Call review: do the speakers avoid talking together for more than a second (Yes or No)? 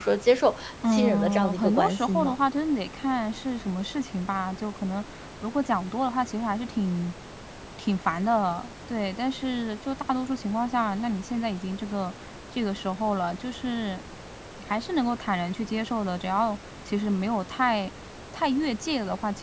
No